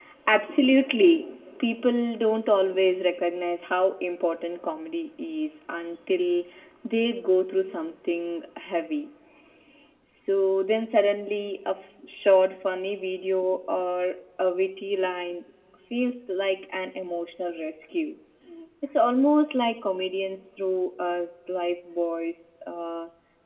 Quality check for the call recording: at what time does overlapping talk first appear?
none

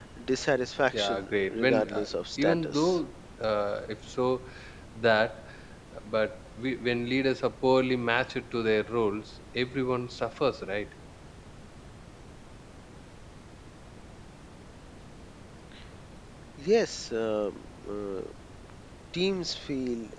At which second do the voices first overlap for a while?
0.9 s

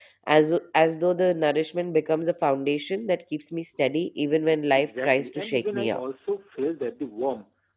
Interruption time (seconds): 4.7 s

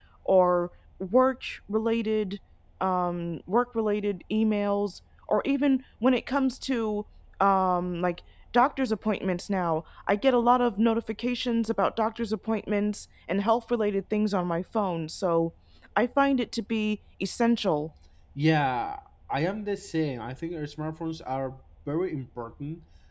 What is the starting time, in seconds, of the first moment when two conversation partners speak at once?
none

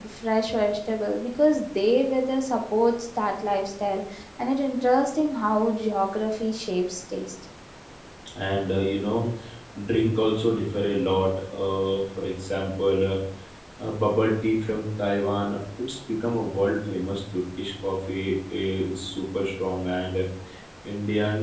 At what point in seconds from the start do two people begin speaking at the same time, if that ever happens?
none

